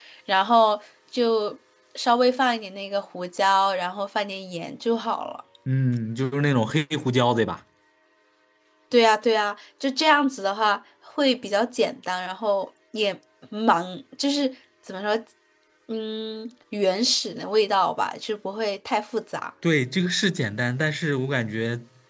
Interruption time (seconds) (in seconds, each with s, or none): none